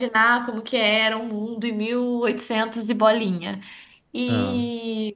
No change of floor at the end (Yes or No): Yes